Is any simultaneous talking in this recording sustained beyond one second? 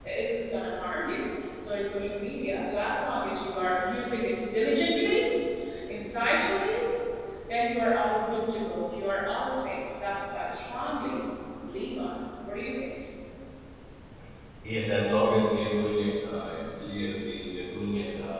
No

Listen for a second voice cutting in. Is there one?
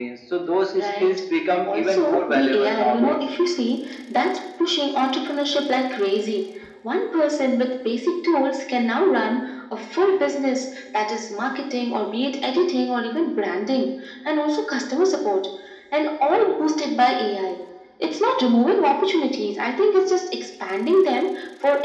Yes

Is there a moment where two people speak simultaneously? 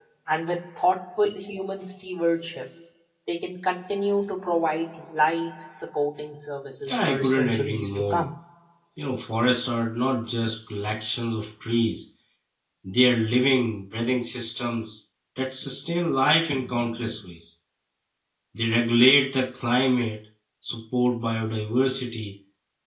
Yes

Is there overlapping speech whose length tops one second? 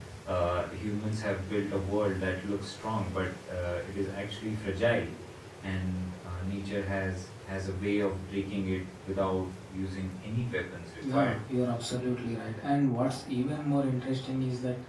No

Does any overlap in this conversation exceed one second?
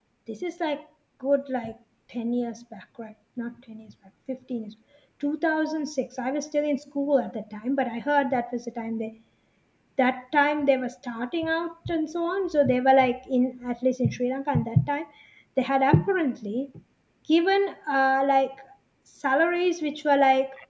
No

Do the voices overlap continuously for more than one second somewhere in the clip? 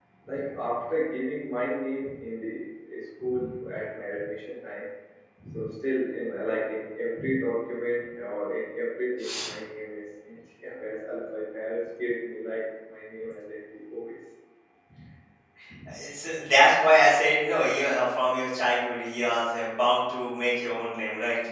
No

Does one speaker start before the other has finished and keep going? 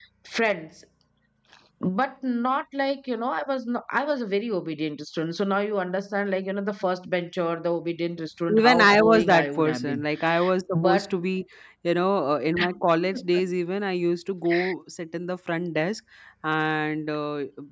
Yes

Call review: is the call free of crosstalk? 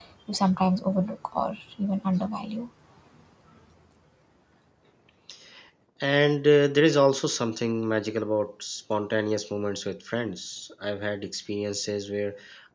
Yes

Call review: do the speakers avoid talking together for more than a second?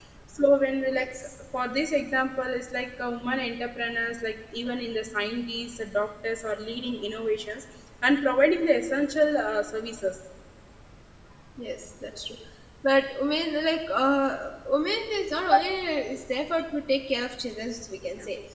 Yes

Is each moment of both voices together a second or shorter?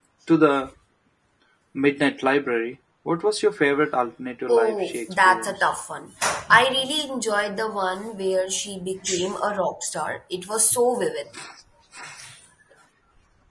No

